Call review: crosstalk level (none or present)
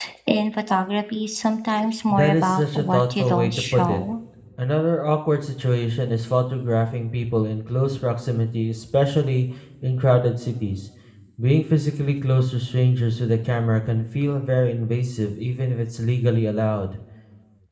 present